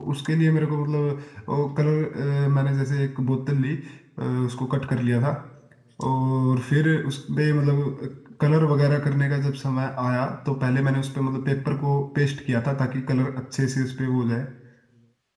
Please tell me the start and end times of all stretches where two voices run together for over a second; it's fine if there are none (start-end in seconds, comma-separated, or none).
none